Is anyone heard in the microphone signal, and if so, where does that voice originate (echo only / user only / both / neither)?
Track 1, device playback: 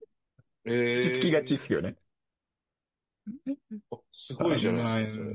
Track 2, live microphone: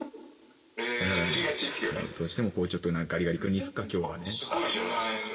both